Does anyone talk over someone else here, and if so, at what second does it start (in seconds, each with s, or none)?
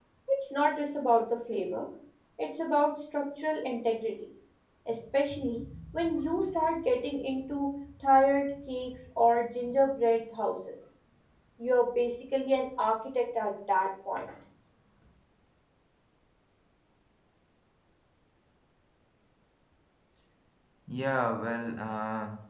none